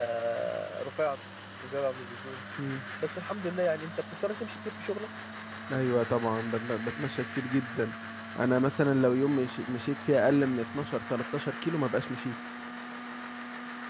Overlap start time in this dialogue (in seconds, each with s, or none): none